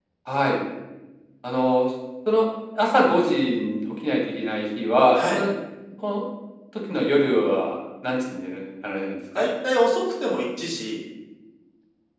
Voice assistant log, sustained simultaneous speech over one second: none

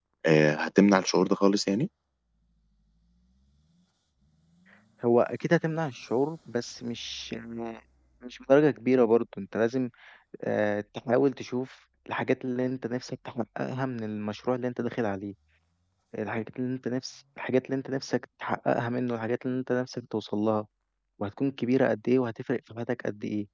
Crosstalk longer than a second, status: none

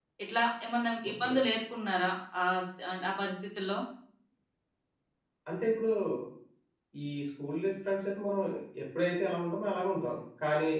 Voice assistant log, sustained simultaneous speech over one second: none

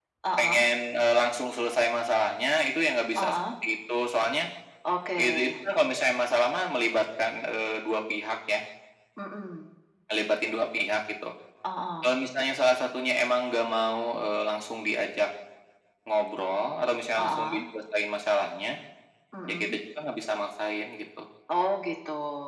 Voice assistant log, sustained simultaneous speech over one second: none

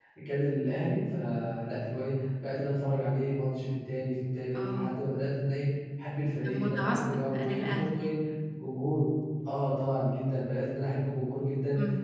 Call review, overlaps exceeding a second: present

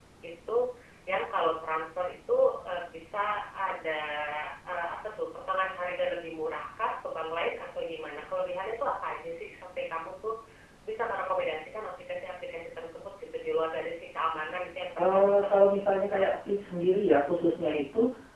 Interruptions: present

